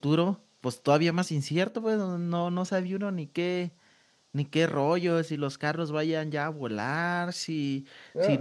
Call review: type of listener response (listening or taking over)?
taking over